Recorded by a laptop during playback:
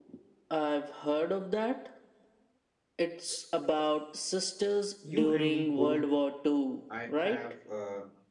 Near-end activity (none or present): present